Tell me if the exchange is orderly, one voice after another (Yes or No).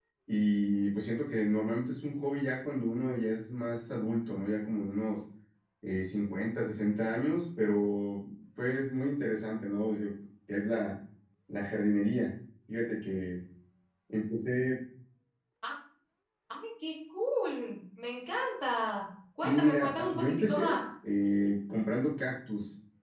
No